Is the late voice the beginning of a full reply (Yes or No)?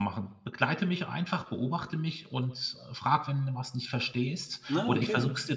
No